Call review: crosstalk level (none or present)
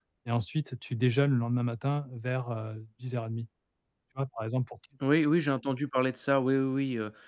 none